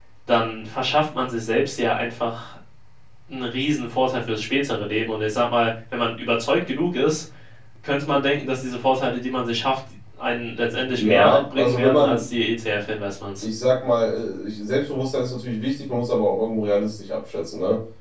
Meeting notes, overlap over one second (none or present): present